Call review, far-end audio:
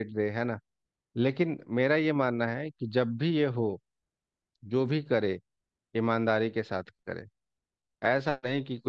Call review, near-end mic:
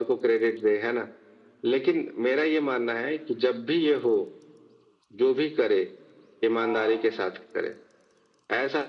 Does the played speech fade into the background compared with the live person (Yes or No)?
No